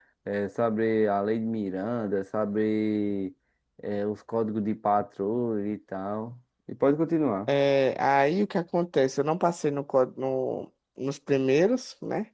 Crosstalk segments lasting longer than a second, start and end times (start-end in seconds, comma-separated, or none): none